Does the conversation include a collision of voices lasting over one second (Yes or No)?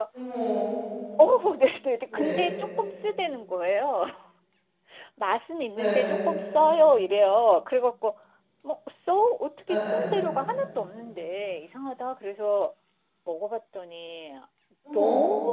No